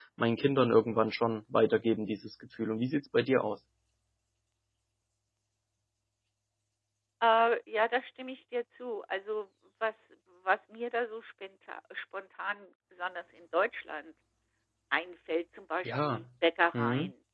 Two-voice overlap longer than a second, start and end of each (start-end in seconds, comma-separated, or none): none